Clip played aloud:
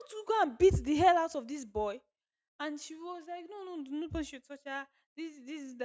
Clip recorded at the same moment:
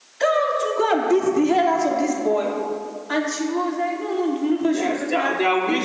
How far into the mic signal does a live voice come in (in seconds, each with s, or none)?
4.7 s